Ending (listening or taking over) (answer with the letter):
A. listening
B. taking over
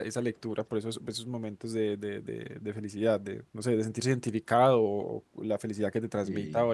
A